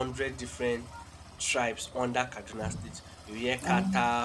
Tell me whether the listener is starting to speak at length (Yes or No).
No